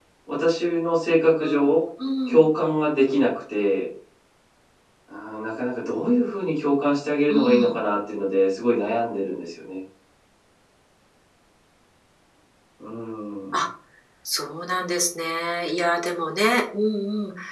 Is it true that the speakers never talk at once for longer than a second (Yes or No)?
Yes